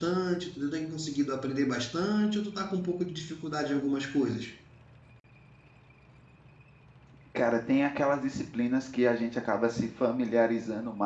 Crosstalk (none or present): none